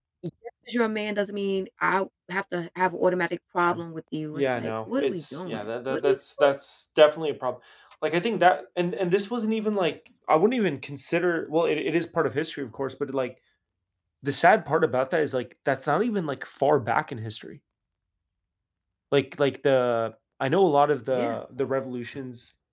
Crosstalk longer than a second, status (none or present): present